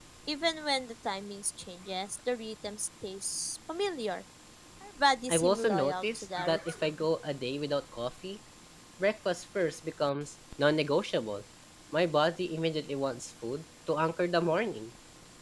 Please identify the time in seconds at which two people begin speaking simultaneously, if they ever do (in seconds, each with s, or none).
5.3 s